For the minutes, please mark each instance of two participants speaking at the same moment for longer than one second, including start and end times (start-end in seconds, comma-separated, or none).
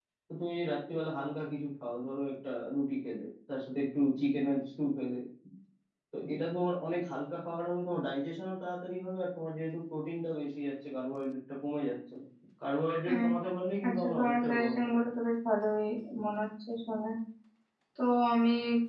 13.9-15.1